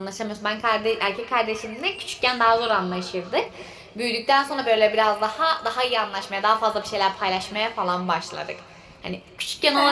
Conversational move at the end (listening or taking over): listening